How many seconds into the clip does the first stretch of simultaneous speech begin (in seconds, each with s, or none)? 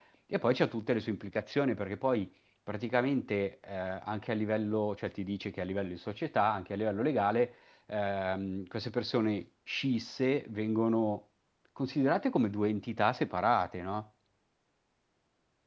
none